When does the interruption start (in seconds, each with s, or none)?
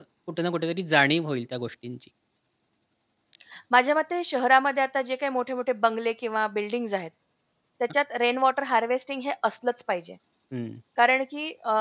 none